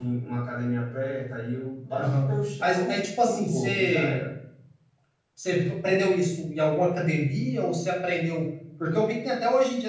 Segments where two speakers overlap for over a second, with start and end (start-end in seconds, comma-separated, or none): 2.0-4.2